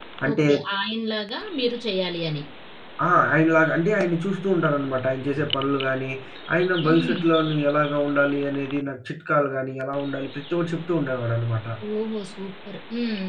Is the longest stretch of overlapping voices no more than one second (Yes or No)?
Yes